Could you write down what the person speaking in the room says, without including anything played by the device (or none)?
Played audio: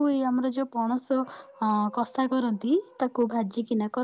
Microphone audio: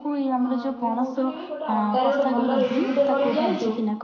ହଁ ମୁଁ କହୁଥିଲି ଗୋଟେ ଅଣ୍ଡାରେ ଗୋଟେ ଭଲ ରେସିପି ଟେ କରିବି ଜାଣିଛୁ।